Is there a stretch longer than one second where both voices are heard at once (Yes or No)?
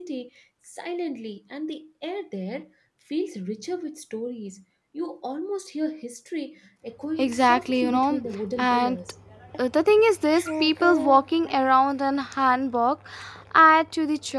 Yes